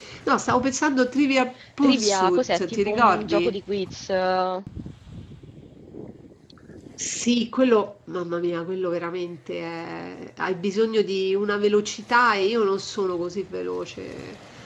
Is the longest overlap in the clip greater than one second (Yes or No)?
Yes